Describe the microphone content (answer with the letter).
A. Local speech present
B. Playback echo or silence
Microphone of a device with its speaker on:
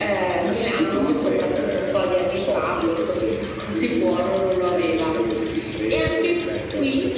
B